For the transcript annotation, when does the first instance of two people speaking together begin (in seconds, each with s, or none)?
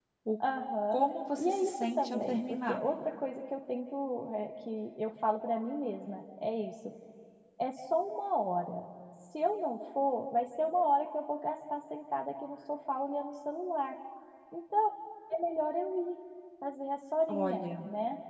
1.4 s